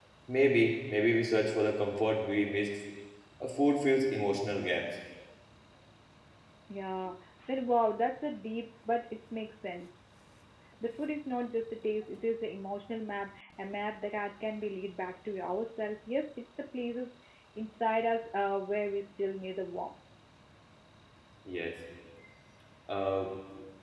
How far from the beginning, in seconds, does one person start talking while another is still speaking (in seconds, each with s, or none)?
none